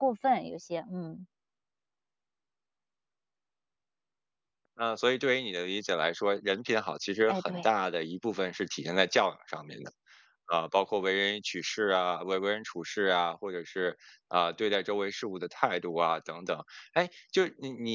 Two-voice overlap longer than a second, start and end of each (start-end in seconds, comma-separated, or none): none